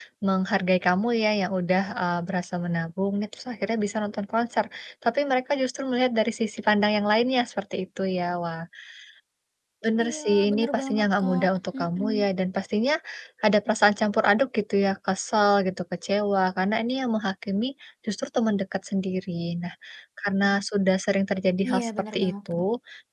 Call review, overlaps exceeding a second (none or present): present